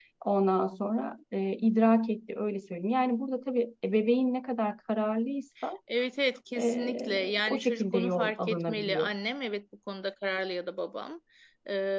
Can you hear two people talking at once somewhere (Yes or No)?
Yes